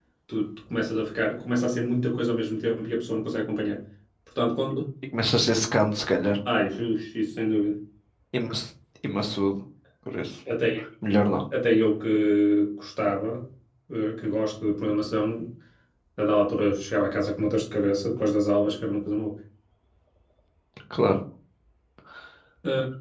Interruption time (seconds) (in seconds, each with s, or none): none